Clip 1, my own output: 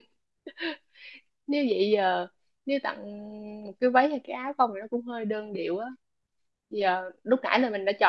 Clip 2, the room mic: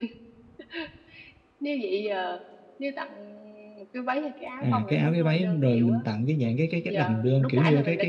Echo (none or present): present